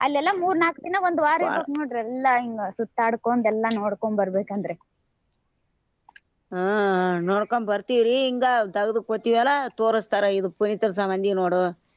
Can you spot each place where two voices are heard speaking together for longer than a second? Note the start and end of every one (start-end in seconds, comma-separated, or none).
none